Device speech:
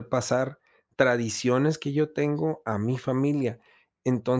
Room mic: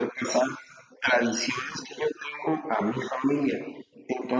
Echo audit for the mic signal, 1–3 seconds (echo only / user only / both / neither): echo only